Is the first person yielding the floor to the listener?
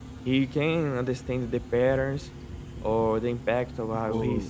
Yes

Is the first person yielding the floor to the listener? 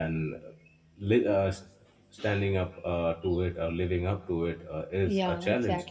Yes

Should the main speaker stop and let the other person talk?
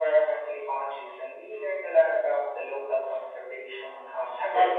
Yes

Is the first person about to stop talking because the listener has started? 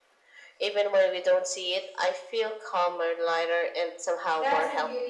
Yes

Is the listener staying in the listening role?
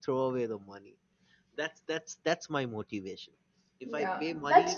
No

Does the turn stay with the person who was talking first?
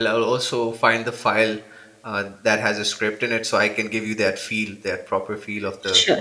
No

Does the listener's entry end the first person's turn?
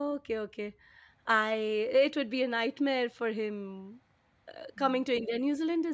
No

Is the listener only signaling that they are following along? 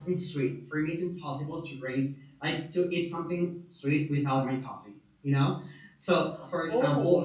Yes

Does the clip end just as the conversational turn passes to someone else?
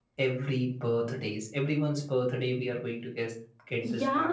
Yes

